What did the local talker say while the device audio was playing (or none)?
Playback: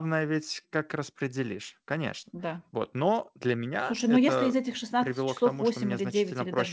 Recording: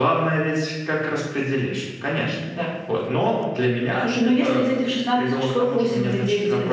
none